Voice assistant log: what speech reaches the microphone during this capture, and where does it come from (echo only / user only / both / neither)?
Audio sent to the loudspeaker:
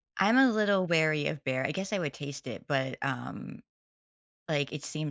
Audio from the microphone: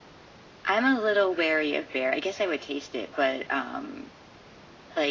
echo only